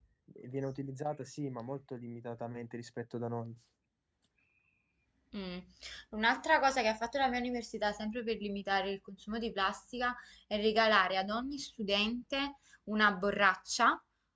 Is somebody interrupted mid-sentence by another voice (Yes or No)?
No